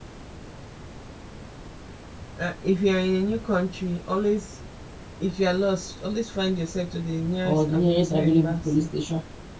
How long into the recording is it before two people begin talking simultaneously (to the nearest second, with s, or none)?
7 s